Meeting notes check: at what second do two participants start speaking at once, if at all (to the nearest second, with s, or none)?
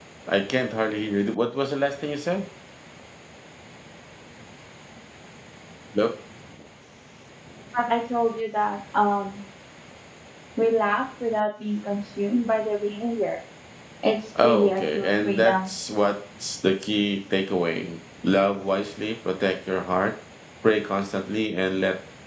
14 s